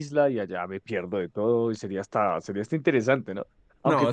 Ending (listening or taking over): taking over